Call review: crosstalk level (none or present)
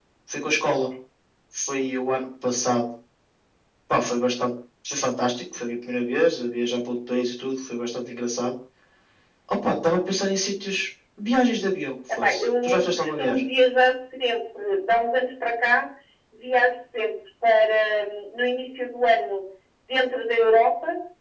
present